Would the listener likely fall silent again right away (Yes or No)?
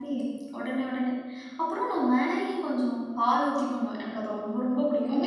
No